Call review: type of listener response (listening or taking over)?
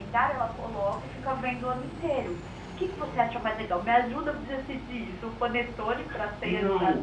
taking over